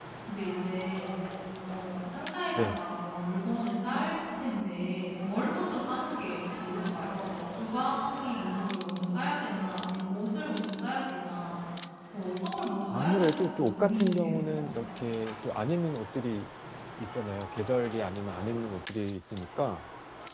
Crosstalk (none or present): present